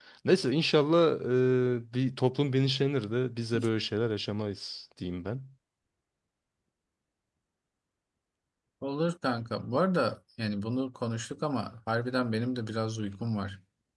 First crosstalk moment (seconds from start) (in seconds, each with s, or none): none